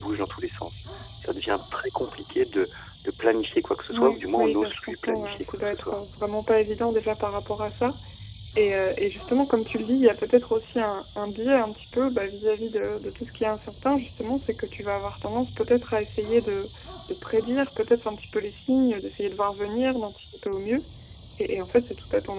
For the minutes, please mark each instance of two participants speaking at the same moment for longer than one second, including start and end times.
3.9-6.0

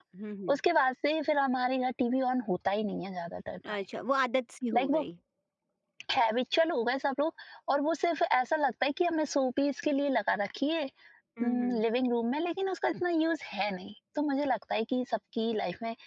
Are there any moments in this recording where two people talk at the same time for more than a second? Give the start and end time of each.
none

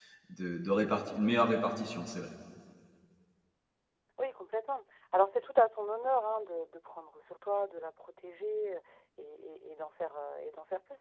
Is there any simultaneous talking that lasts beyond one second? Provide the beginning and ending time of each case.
none

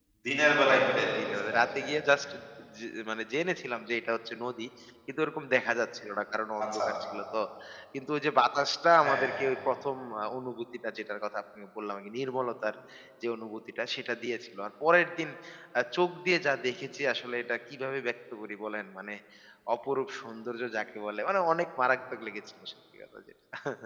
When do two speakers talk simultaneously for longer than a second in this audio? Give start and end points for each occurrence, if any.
0.7-1.9

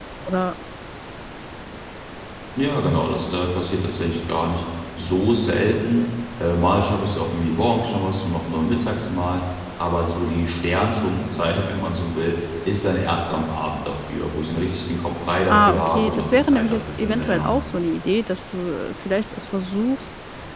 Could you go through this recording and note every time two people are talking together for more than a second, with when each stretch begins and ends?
15.5-17.5

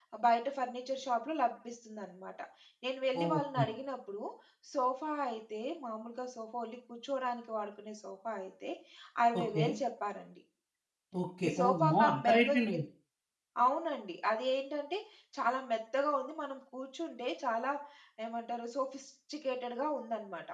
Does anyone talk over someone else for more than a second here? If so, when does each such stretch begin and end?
11.5-12.8

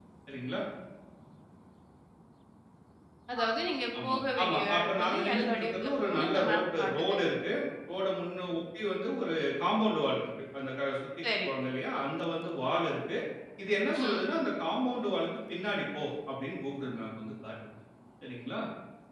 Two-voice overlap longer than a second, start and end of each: 4.0-7.2

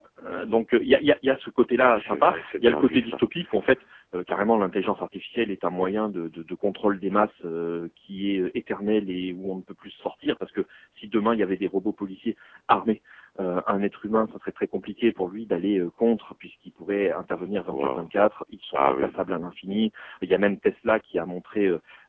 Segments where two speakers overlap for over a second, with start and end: 1.8-3.2

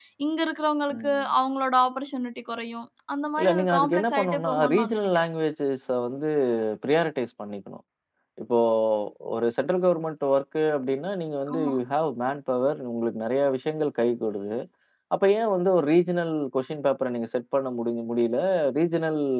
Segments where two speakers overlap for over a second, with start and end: 3.4-5.3

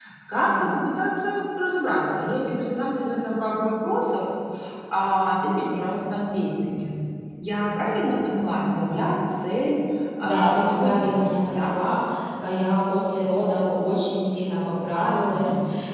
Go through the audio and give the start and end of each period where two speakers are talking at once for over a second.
10.2-11.7

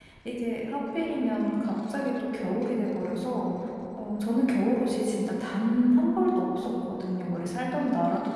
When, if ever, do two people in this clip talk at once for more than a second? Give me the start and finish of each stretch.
none

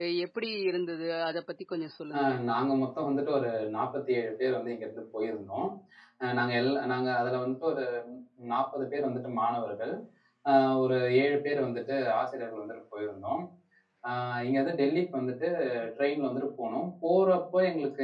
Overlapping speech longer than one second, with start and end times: none

